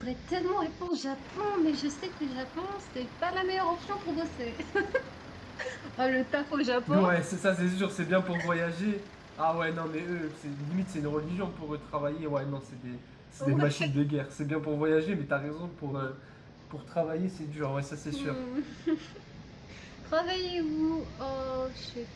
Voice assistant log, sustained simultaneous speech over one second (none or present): none